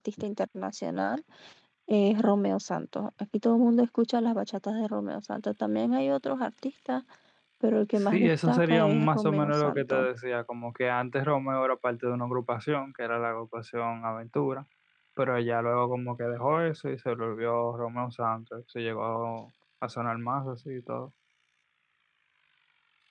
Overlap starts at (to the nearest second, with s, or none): 8 s